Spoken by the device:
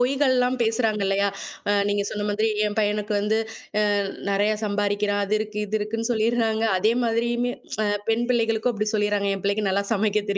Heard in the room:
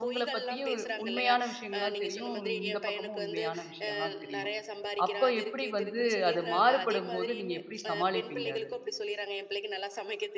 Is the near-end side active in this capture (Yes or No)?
Yes